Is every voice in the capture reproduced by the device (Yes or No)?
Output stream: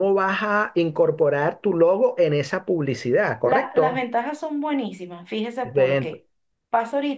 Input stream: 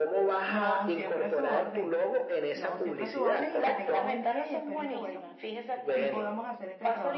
No